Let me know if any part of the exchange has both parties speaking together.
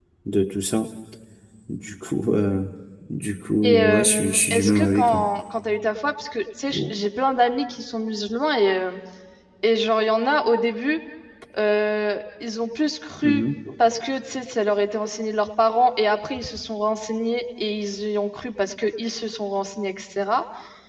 Yes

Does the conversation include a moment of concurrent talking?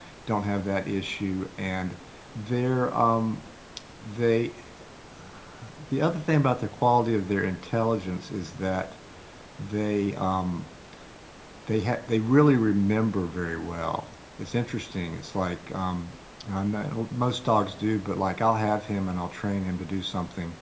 No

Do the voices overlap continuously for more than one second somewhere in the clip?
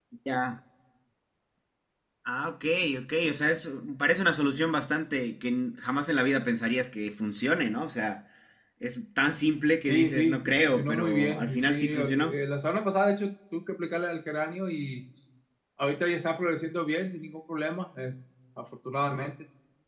Yes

